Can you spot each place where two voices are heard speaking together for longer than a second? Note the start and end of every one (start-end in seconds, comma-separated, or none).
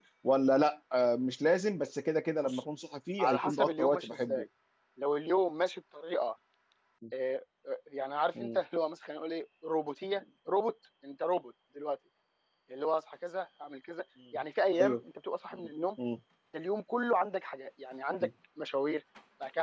3.2-4.4